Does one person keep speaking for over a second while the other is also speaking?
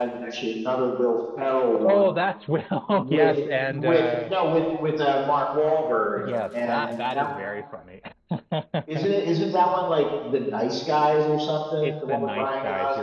Yes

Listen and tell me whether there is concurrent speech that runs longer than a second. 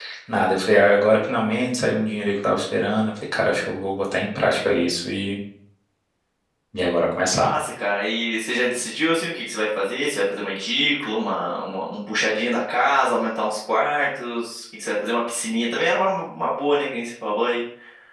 No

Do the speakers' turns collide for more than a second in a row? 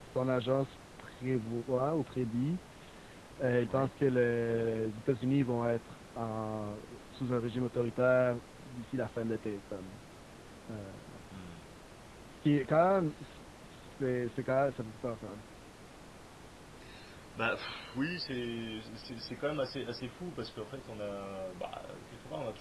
No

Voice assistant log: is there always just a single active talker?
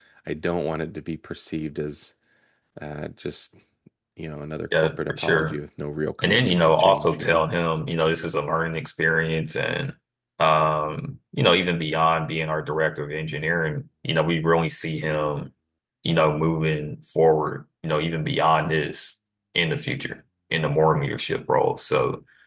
No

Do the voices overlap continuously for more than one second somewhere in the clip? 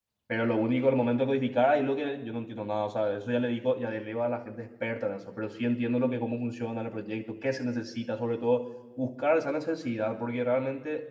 No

